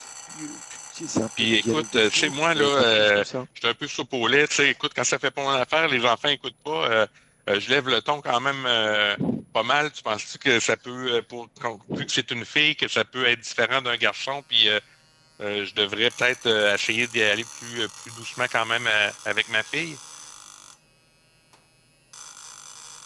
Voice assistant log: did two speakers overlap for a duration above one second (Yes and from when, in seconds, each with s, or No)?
Yes, from 1.4 s